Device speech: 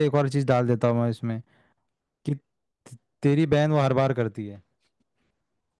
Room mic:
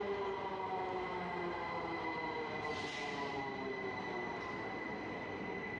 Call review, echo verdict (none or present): none